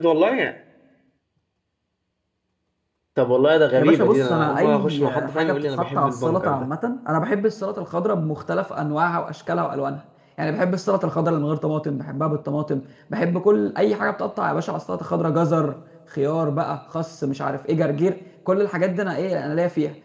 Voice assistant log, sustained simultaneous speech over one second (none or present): present